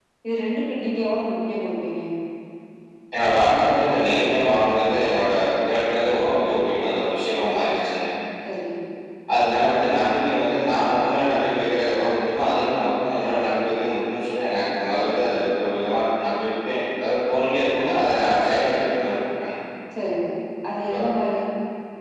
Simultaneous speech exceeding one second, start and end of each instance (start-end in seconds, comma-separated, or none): none